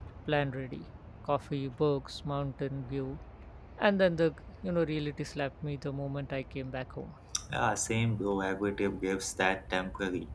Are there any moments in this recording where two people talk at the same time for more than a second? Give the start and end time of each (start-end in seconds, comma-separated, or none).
none